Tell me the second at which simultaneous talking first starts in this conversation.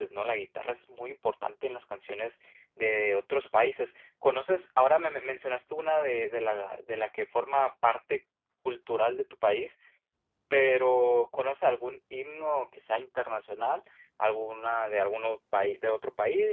none

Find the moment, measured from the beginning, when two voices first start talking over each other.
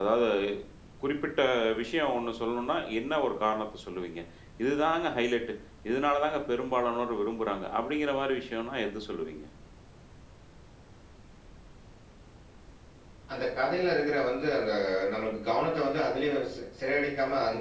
none

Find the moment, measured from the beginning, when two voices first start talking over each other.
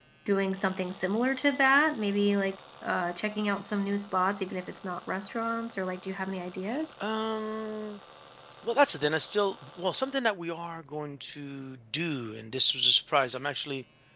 none

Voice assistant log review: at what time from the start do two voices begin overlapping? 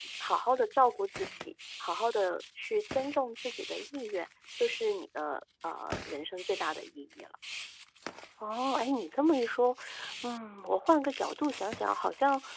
none

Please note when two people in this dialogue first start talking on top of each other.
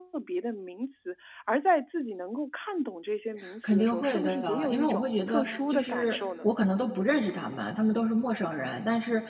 3 s

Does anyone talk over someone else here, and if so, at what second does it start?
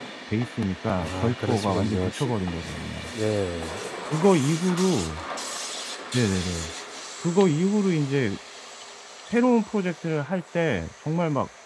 1 s

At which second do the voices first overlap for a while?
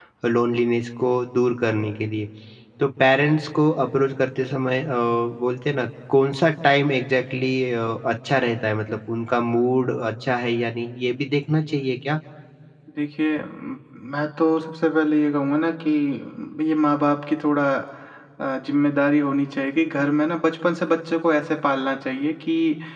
none

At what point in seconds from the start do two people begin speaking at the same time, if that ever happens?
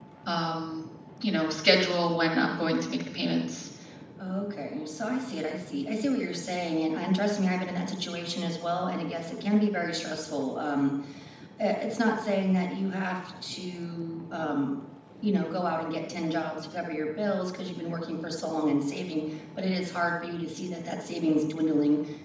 none

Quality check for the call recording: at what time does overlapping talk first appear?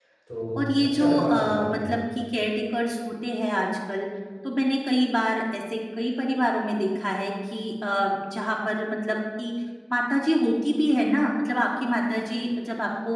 1 s

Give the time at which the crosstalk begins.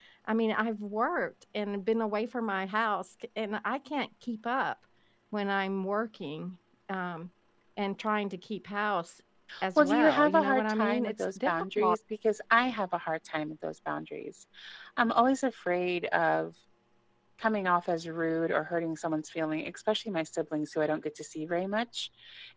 10 s

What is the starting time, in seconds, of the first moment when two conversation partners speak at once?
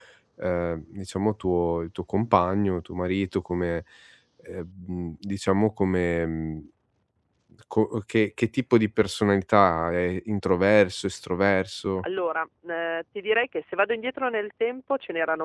none

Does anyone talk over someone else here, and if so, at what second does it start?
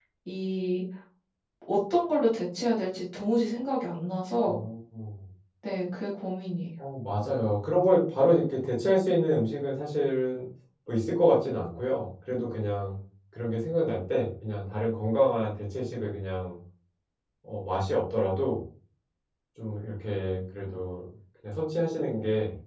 none

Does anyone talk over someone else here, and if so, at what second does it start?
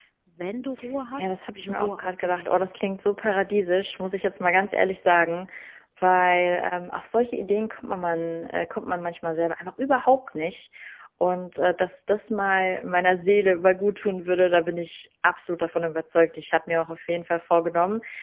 1 s

